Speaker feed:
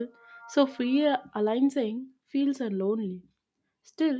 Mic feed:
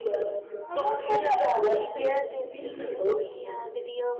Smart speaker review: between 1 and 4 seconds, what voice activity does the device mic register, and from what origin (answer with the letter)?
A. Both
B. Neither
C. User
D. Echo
A